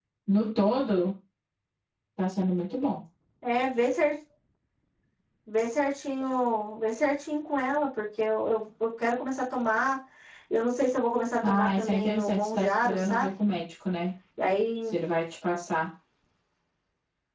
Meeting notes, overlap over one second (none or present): present